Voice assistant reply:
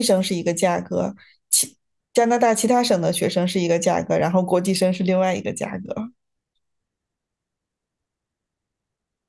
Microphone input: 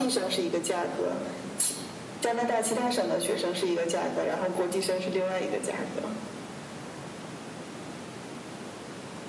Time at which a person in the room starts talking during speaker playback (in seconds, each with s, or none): none